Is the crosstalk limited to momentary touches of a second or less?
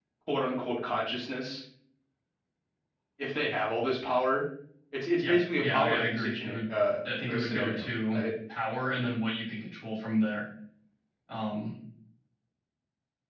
No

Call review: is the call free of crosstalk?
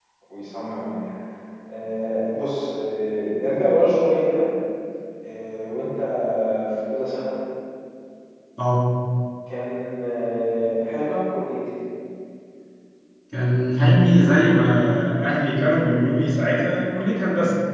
Yes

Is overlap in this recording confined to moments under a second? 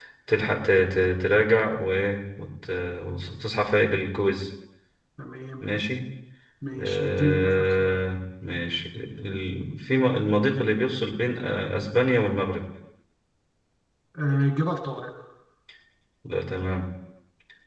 No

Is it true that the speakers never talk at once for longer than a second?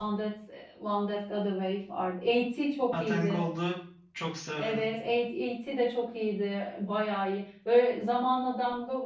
Yes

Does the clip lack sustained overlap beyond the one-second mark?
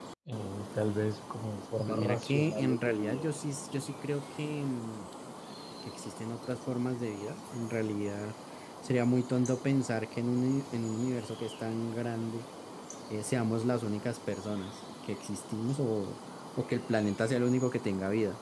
No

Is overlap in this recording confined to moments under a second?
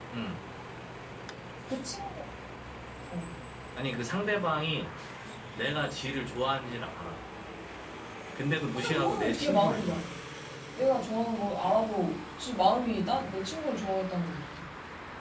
No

